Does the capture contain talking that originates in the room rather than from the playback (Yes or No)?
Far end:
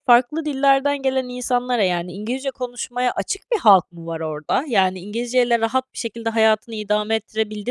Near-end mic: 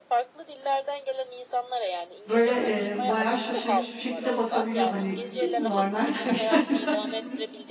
Yes